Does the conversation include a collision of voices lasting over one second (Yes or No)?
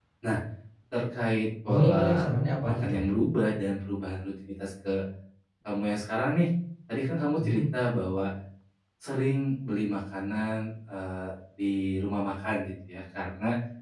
No